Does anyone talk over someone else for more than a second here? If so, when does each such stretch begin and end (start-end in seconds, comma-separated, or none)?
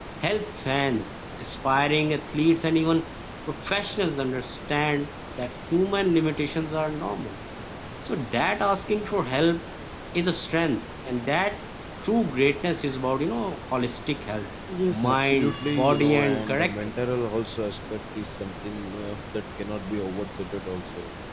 14.9-16.9